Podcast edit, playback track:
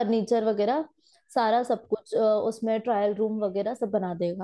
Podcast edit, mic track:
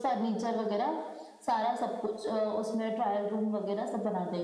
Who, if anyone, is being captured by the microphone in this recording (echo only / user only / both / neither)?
echo only